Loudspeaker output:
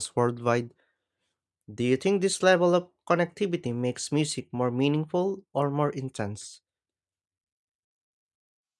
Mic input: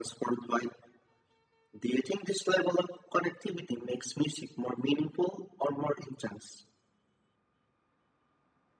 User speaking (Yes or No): No